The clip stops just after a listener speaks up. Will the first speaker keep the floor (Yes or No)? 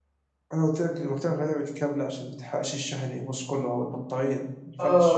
No